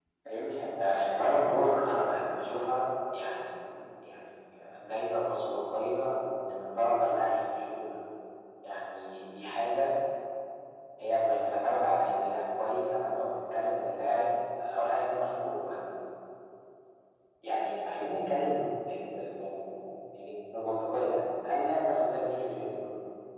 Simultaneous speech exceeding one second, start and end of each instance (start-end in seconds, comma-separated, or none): 0.8-2.2